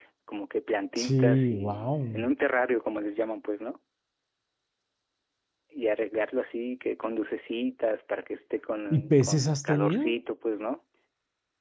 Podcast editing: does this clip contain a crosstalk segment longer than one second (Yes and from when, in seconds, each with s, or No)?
Yes, from 0.9 s